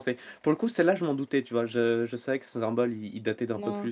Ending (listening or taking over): listening